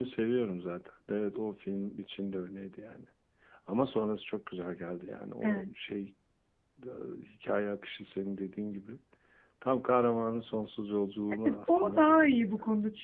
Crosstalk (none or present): present